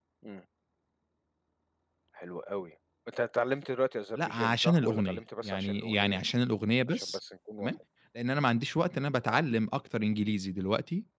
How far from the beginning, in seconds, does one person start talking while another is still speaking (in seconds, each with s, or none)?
4.2 s